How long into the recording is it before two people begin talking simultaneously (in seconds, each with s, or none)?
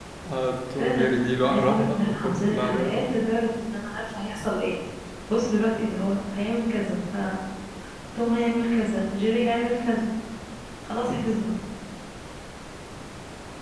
0.8 s